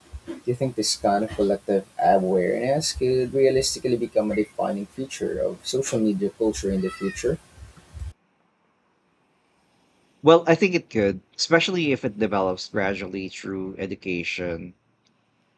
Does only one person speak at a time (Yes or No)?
Yes